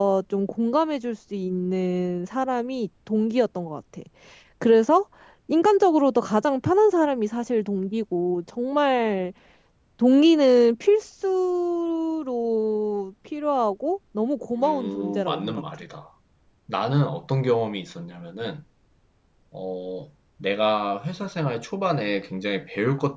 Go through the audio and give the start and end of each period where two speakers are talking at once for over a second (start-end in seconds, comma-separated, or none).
14.6-15.8